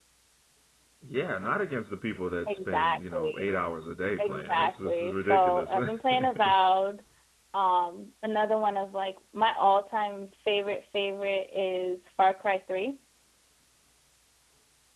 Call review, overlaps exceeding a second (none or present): present